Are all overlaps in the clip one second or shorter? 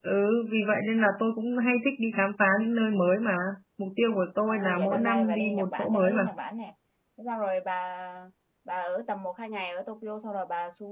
No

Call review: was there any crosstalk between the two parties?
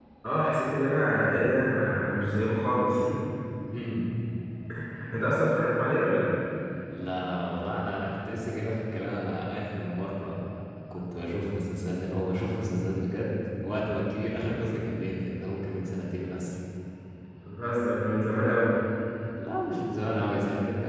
No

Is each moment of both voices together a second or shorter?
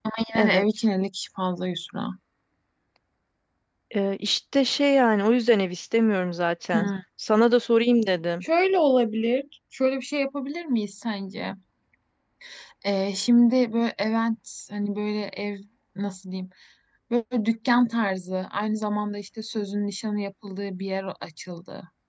Yes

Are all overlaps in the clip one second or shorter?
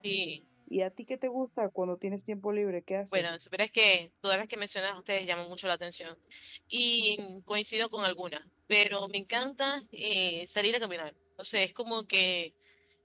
Yes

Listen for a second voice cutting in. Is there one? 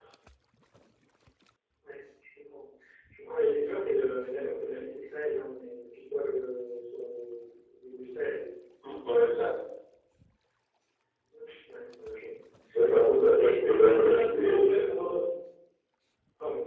Yes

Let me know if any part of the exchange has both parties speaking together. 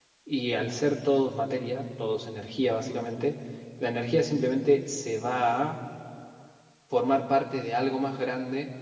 No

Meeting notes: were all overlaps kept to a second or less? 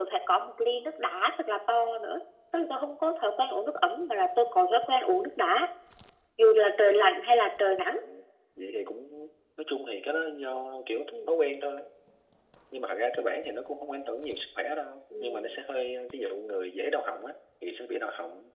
Yes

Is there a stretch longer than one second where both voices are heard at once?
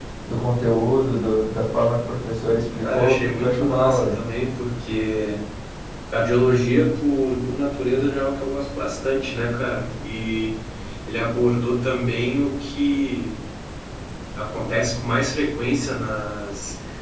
Yes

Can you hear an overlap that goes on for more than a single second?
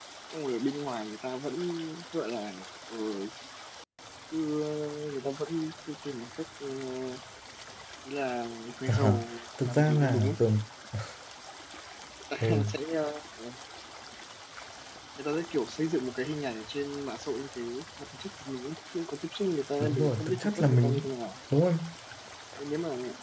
Yes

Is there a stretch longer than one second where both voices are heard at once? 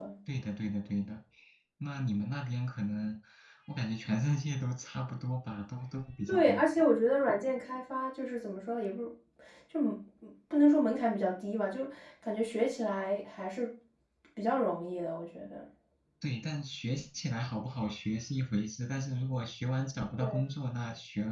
No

